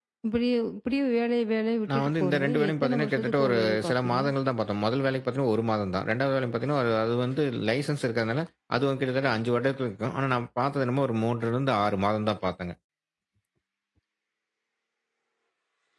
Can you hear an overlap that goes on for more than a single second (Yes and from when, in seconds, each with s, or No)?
Yes, from 1.9 s